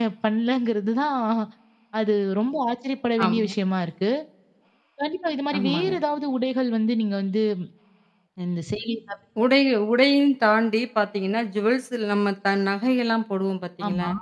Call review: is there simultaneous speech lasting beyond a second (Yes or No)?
No